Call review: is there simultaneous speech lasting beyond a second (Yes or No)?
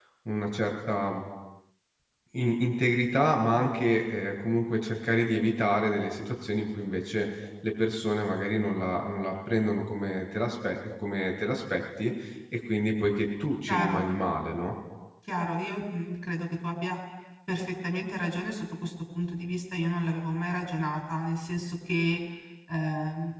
No